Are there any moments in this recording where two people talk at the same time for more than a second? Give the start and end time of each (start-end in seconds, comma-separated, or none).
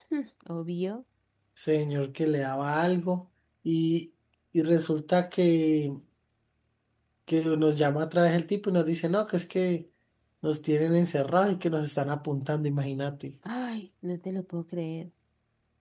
none